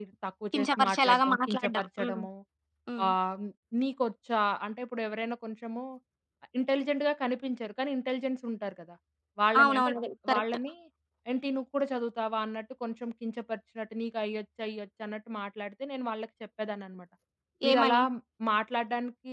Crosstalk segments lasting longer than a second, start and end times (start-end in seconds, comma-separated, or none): 0.5-2.2